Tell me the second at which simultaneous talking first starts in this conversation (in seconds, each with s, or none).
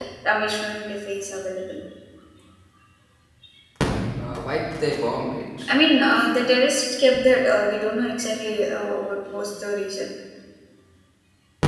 none